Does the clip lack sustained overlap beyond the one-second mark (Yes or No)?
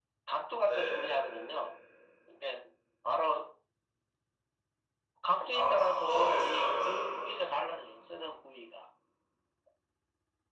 No